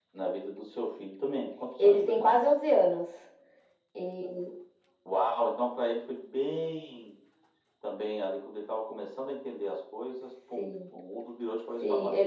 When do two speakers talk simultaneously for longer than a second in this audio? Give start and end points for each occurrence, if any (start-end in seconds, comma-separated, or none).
none